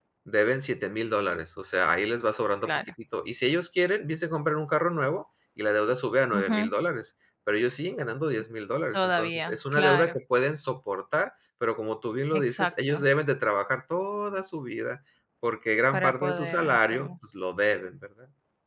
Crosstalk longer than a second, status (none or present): present